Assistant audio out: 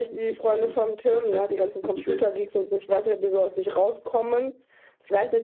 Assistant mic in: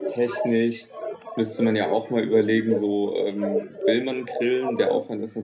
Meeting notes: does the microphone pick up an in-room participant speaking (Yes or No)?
Yes